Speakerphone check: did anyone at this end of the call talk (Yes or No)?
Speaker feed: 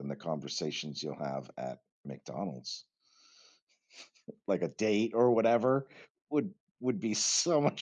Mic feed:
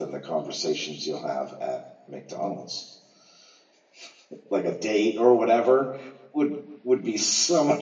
No